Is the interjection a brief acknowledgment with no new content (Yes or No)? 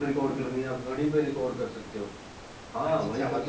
No